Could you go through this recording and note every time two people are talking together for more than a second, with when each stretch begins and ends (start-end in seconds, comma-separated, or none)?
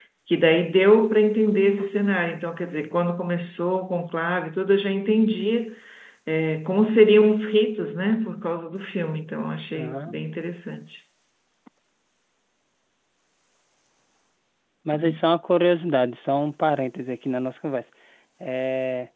none